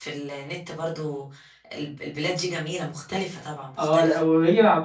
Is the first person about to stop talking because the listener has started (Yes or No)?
Yes